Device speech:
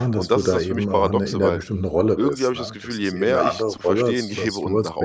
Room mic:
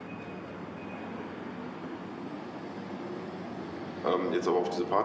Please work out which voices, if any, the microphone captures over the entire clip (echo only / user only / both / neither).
user only